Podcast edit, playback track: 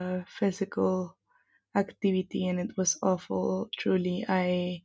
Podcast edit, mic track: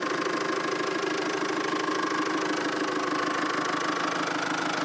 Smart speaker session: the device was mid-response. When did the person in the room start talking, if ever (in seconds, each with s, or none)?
none